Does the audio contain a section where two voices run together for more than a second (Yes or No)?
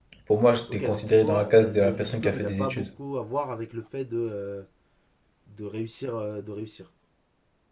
Yes